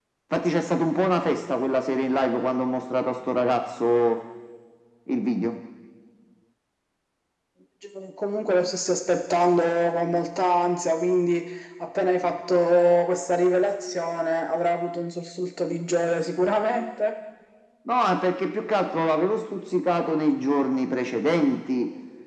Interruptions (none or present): none